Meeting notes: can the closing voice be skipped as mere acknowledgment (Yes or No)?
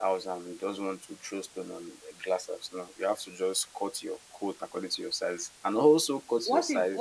No